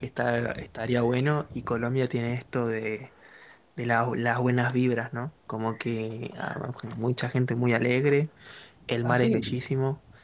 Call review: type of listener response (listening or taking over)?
listening